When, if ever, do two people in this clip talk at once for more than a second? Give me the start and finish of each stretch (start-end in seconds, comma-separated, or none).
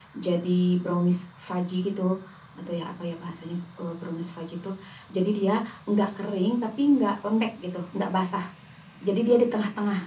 none